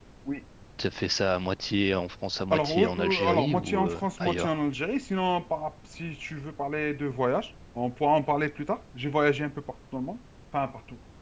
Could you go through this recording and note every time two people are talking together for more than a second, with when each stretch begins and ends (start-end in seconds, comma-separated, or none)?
2.5-4.6